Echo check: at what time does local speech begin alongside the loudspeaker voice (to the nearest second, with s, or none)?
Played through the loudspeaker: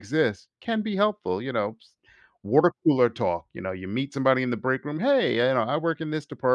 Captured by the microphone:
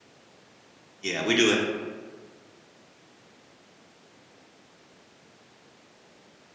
1 s